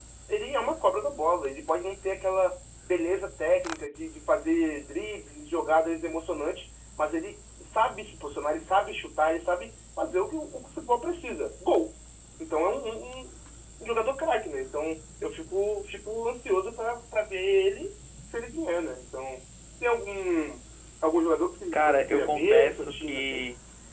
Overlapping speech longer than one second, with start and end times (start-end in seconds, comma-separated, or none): 21.7-23.4